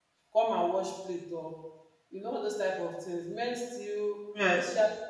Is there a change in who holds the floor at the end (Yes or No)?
No